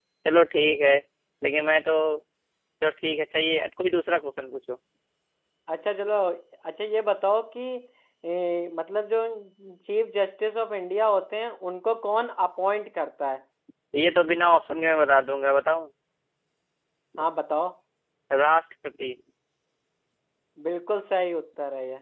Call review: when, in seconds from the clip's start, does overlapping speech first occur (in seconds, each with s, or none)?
none